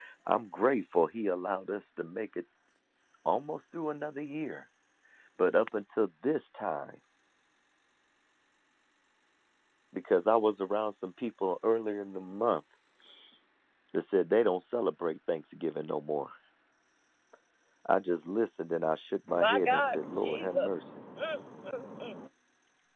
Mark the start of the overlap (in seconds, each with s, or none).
19.3 s